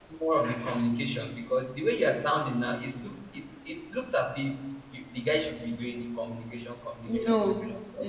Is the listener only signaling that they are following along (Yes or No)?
No